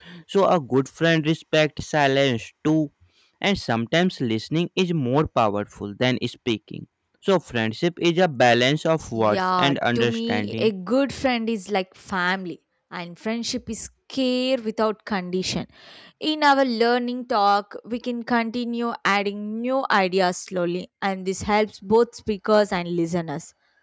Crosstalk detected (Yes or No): Yes